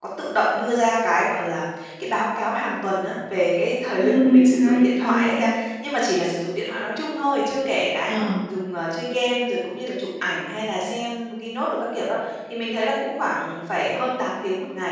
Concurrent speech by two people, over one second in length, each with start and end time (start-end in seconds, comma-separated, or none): 4.0-5.4